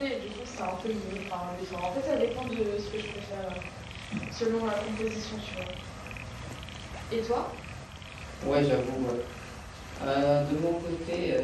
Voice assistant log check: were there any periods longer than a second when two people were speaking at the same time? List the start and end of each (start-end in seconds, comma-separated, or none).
none